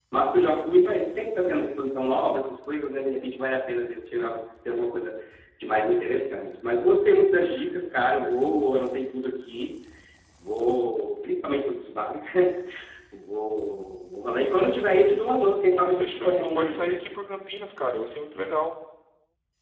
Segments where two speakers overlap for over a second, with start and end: 15.7-17.0

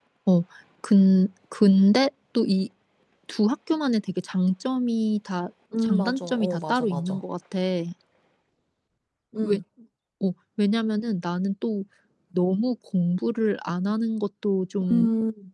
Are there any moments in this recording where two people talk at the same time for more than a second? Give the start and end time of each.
5.8-7.2

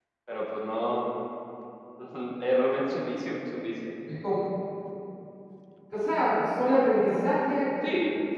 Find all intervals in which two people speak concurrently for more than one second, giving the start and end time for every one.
none

